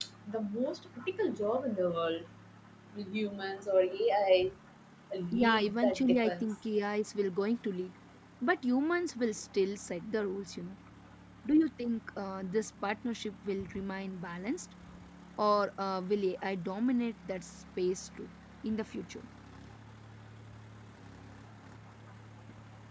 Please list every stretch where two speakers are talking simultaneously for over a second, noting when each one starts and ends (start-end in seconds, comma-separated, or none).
5.3-6.5